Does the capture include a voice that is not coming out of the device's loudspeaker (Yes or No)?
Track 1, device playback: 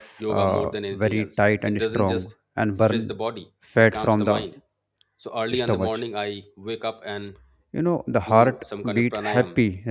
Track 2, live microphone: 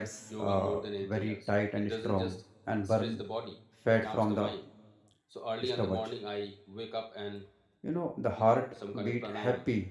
No